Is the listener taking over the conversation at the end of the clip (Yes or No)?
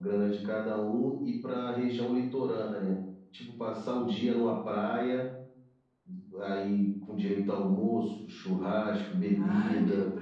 Yes